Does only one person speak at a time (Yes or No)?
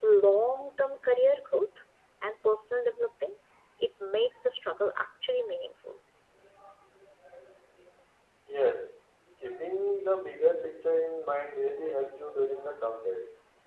Yes